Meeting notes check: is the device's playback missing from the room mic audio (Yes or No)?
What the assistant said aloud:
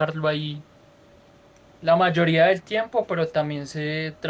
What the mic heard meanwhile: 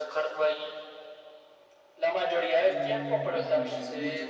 No